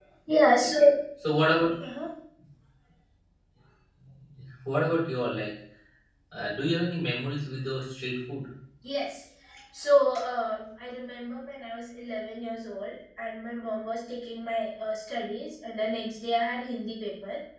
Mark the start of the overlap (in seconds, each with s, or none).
none